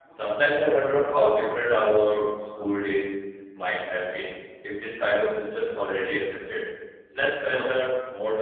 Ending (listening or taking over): listening